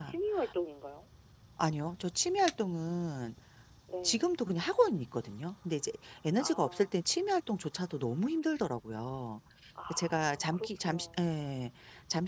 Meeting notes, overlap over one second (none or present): present